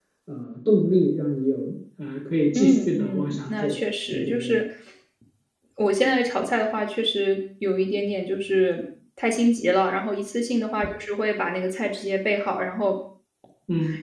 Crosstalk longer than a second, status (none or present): present